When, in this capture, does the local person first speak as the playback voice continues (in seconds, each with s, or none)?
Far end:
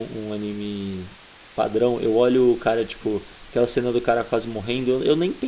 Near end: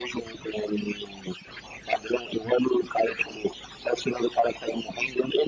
none